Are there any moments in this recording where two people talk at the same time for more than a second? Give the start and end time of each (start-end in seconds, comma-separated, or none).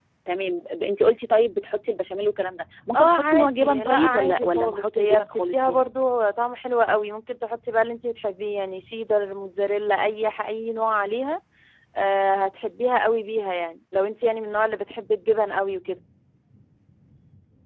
3.0-5.8